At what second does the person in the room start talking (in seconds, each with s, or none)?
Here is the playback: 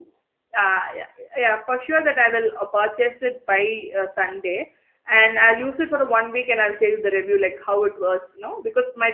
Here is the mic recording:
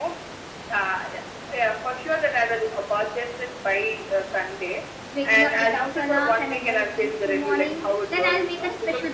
5.1 s